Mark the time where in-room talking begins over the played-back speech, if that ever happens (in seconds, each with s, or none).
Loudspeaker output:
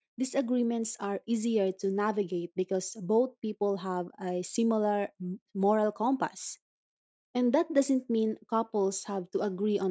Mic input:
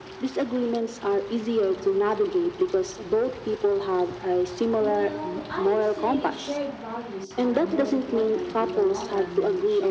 4.8 s